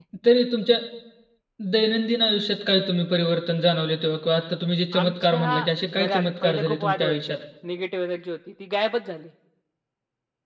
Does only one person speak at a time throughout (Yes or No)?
No